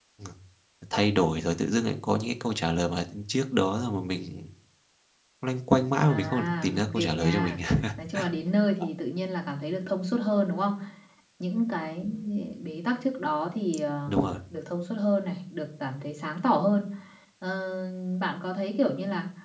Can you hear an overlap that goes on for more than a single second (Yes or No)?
Yes